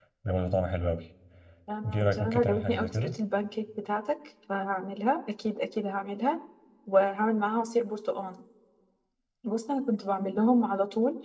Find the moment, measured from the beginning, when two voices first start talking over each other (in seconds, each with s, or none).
1.9 s